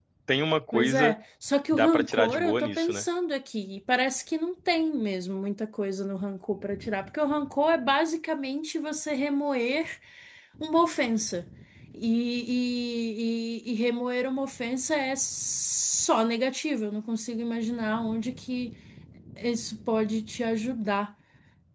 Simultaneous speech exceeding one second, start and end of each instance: 1.7-3.0

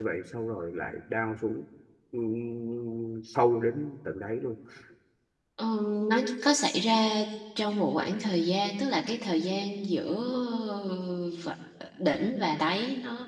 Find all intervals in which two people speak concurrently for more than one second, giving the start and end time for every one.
none

